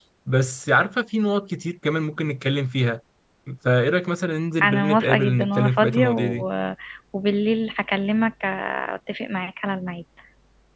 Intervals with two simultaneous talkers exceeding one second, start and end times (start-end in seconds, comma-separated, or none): 4.6-6.5